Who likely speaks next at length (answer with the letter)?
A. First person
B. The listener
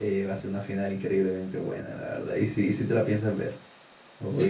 B